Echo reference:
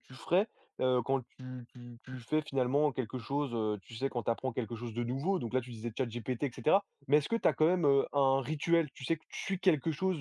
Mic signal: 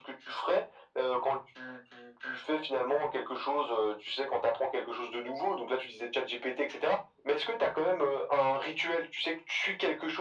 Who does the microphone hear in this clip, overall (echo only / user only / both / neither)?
echo only